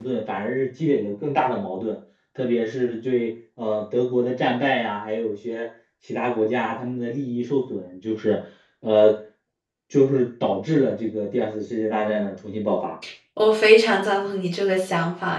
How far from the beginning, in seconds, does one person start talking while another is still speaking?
none

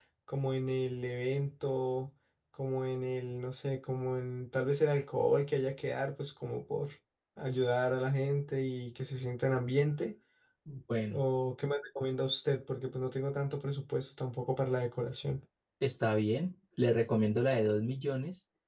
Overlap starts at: none

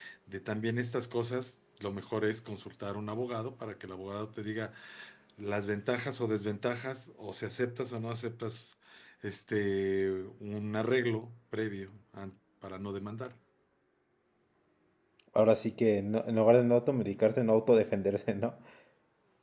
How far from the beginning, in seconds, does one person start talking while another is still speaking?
none

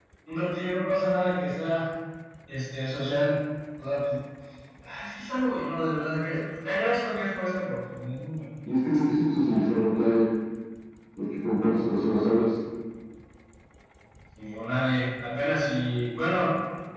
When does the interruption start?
none

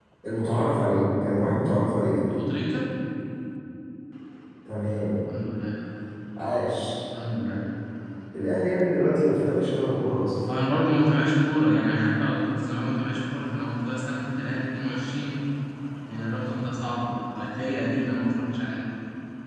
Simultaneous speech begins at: none

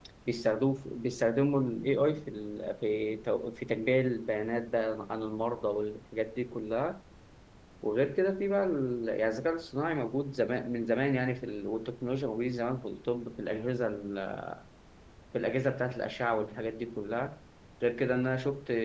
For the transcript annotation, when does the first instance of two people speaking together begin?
none

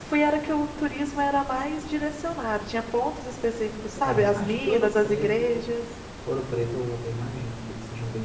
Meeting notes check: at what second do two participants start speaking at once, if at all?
4.0 s

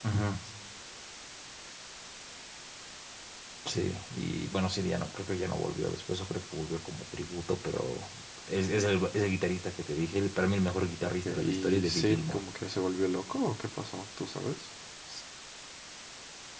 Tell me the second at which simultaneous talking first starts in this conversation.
11.0 s

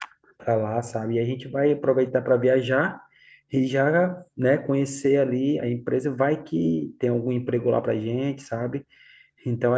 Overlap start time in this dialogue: none

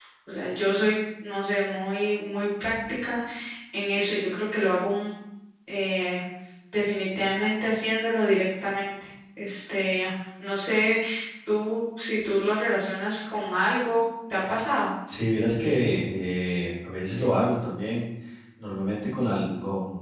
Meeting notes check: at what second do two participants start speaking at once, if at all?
none

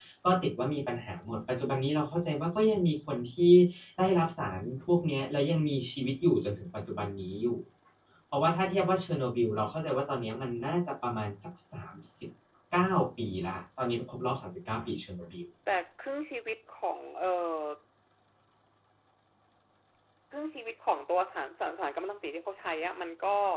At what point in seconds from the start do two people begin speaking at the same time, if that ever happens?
none

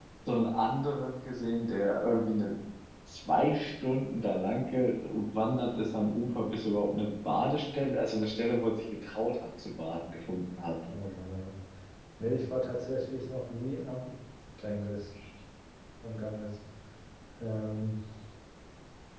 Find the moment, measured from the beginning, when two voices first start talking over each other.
none

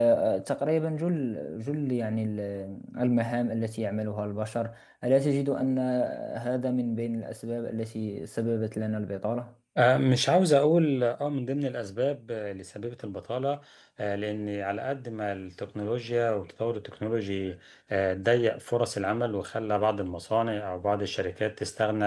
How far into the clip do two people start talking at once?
none

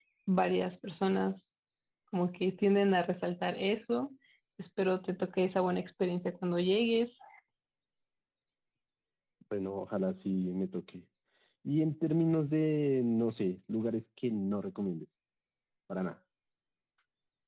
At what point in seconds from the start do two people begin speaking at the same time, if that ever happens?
none

